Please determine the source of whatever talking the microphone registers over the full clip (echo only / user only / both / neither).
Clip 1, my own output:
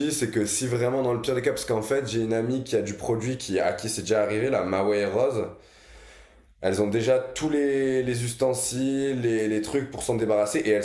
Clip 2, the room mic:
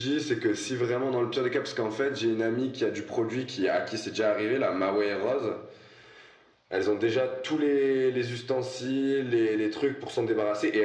echo only